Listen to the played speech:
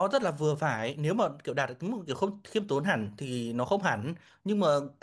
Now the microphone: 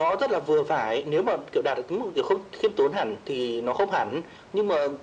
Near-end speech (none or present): none